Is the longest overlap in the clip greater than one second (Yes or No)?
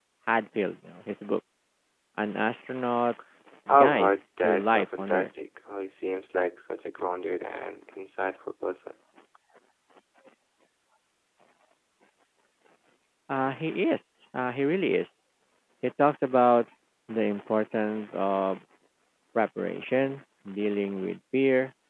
Yes